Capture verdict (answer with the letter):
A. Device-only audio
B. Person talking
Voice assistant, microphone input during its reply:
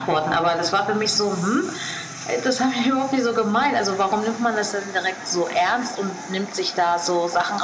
A